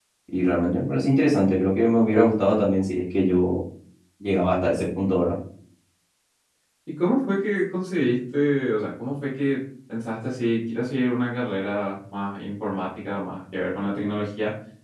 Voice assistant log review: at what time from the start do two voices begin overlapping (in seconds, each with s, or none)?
none